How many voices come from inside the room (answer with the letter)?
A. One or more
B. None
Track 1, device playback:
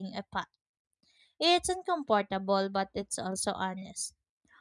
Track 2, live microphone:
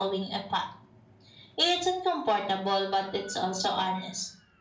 B